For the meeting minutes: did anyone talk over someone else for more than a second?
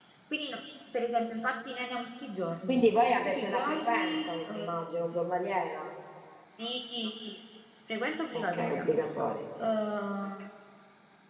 Yes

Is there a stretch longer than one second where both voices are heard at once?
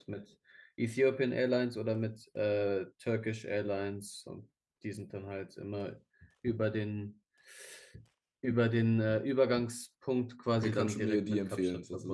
Yes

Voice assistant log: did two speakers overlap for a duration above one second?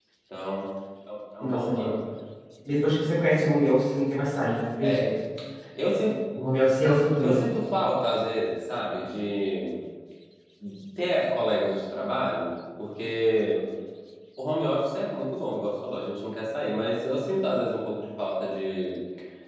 No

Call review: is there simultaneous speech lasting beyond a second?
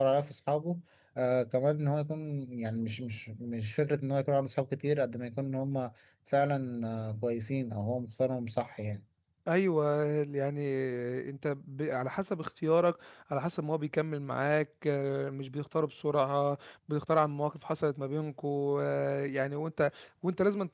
No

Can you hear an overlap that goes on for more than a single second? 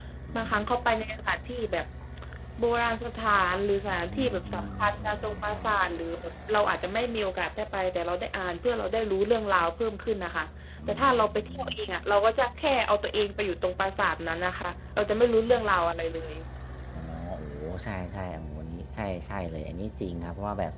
Yes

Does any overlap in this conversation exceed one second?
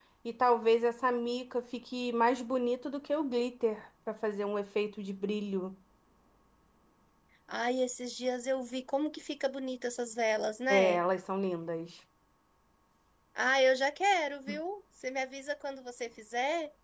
No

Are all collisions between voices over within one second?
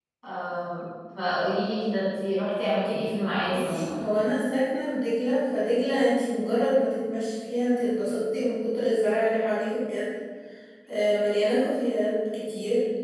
Yes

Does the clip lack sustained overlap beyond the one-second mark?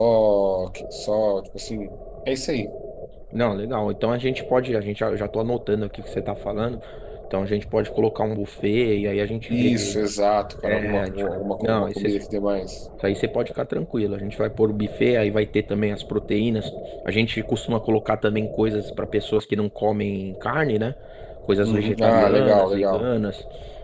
No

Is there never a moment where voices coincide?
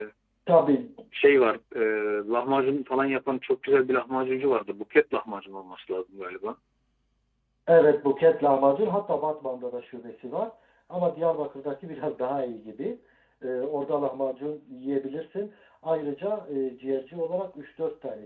Yes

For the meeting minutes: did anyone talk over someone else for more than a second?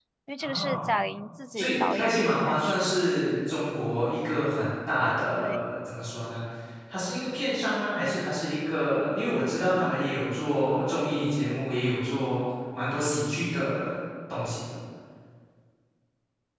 Yes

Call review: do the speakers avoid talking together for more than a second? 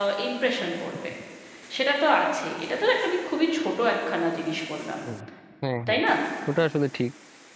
Yes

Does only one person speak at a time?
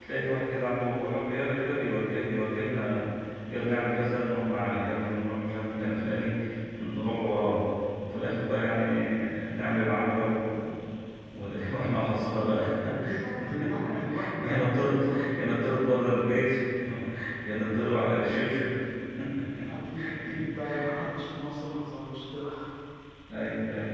No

